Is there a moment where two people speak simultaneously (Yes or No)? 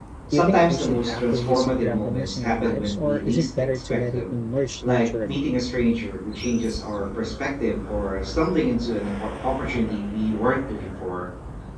Yes